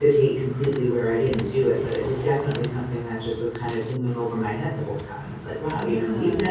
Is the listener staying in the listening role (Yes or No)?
Yes